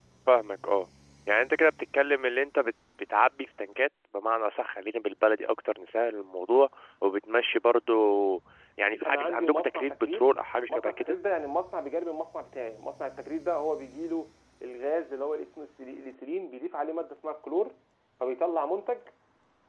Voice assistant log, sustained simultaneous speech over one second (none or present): present